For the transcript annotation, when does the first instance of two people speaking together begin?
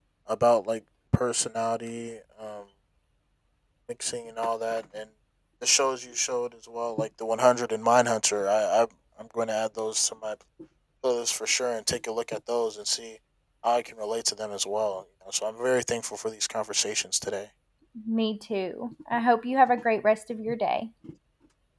none

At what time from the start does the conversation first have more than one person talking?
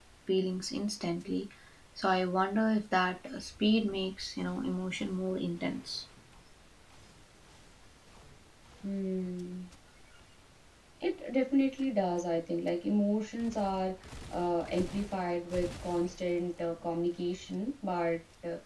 none

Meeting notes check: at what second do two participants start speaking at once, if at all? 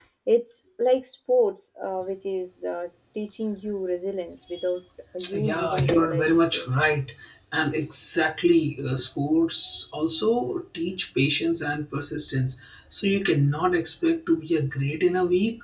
5.2 s

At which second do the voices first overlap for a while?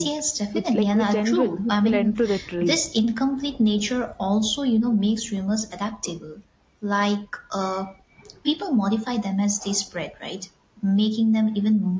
0.5 s

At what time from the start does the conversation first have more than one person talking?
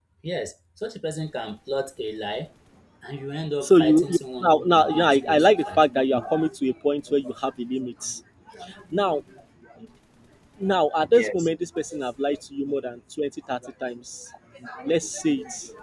3.6 s

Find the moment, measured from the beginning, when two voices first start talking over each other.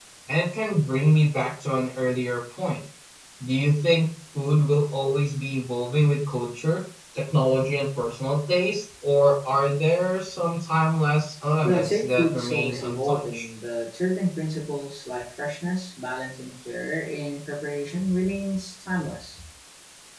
11.6 s

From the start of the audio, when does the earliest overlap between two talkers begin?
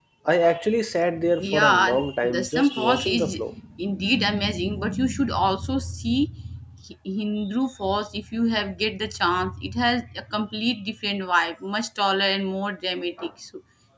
1.4 s

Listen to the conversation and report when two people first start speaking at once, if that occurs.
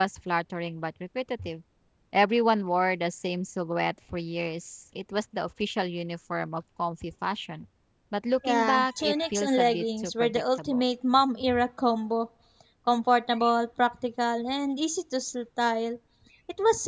8.4 s

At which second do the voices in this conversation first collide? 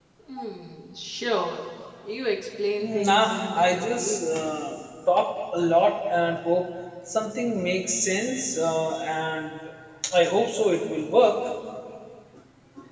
2.8 s

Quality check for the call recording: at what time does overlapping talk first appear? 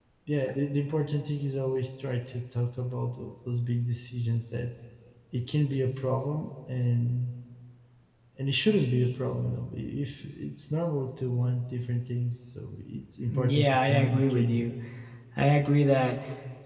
13.3 s

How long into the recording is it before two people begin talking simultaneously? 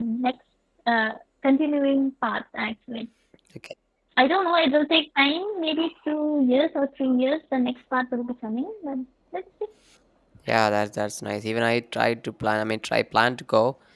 none

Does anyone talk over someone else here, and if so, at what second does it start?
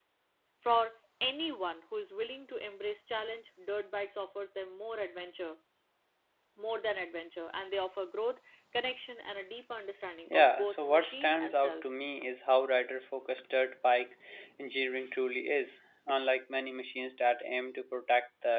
10.3 s

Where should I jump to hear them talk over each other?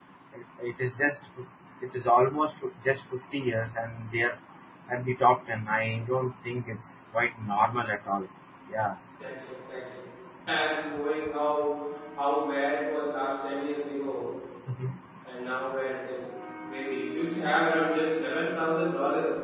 none

